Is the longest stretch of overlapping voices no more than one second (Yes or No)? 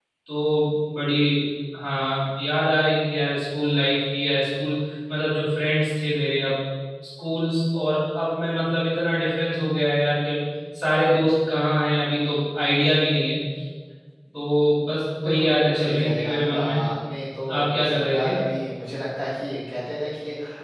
No